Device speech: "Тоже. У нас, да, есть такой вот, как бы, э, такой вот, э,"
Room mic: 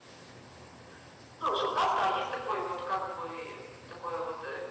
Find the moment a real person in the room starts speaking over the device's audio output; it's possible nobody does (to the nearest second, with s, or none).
none